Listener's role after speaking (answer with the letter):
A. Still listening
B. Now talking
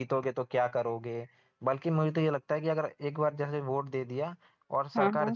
A